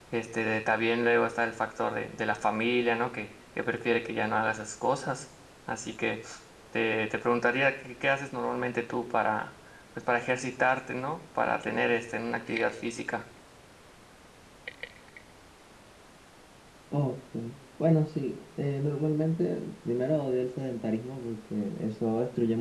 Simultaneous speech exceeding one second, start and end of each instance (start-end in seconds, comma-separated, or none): none